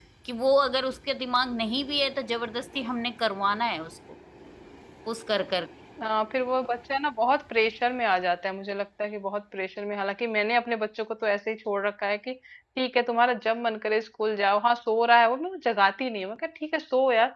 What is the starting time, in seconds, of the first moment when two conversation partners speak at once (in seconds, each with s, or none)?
none